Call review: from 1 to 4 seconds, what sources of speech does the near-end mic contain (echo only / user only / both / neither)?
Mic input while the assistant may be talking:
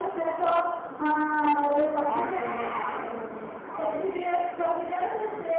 both